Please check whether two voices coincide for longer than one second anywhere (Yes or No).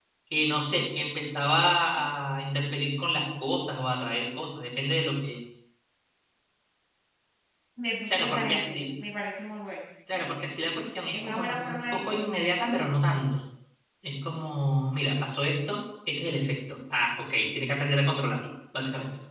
Yes